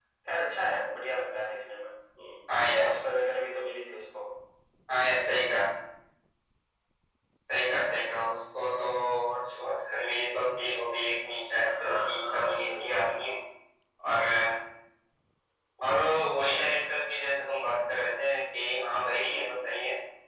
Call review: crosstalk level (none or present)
present